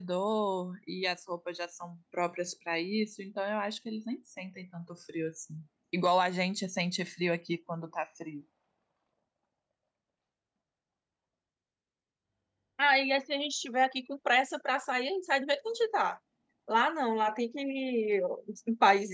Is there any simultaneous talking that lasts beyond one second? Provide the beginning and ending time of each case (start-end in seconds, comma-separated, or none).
none